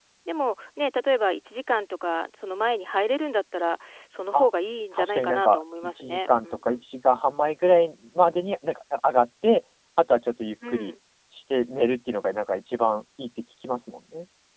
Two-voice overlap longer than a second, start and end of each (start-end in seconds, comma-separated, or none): 4.9-6.8